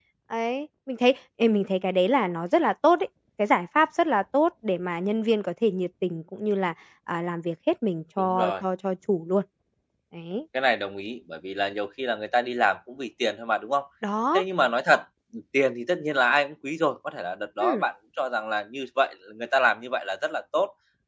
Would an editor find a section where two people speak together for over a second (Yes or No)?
No